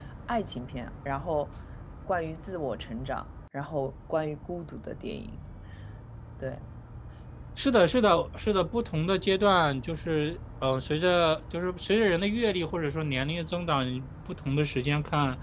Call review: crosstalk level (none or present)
none